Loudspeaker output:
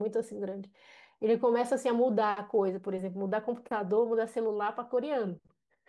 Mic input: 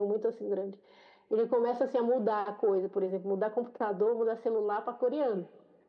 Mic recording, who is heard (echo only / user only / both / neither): echo only